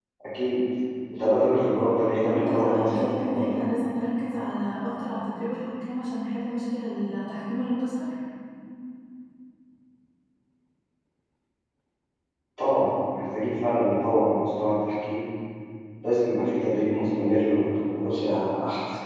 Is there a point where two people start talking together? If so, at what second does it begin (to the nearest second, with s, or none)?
2 s